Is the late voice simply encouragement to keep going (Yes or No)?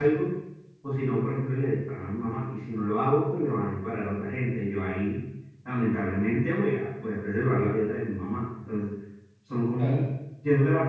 Yes